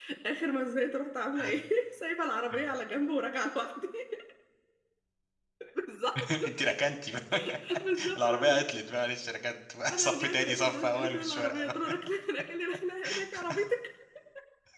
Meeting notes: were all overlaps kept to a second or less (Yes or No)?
No